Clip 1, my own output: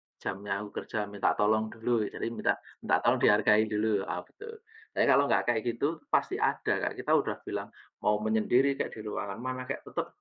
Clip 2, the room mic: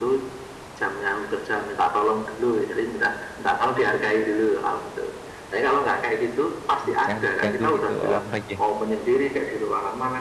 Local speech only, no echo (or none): Mmm, jangan diganggu gitu, oh iya.